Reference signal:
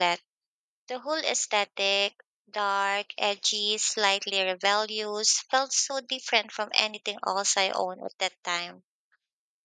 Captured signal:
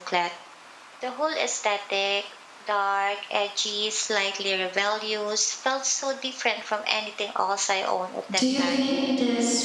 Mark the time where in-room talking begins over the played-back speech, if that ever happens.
8.3 s

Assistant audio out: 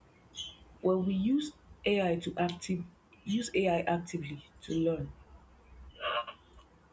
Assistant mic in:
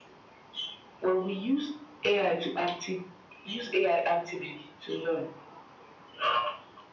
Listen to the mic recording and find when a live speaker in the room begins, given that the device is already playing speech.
none

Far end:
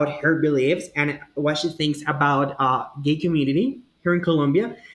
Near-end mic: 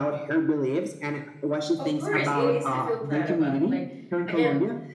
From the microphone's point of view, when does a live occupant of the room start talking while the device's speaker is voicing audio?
1.8 s

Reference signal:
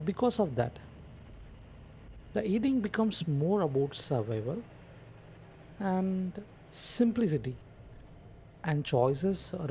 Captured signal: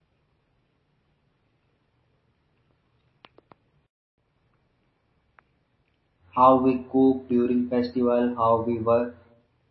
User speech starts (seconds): 6.3 s

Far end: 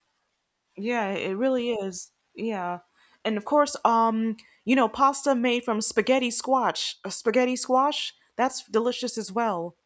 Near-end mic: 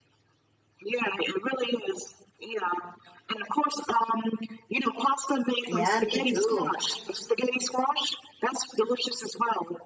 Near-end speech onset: 5.6 s

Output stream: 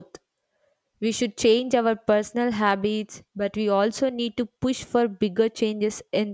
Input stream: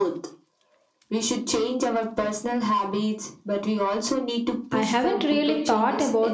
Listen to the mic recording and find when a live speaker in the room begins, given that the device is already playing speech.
4.7 s

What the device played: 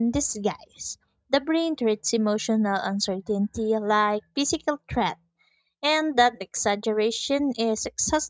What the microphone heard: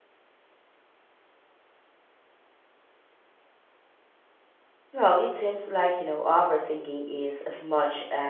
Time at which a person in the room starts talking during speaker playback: 4.9 s

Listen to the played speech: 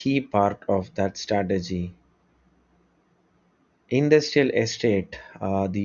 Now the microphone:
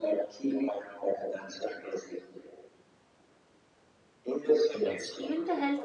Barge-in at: 4.7 s

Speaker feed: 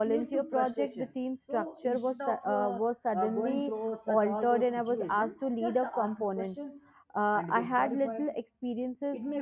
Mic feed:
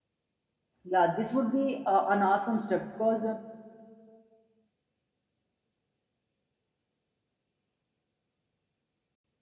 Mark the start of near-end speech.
0.8 s

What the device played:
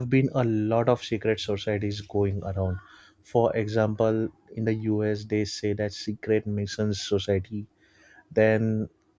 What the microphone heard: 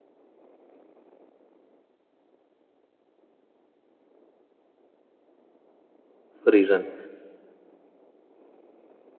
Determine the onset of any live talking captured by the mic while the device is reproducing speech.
6.4 s

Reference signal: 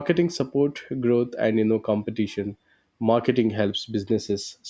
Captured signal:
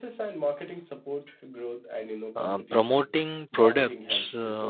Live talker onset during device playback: 2.4 s

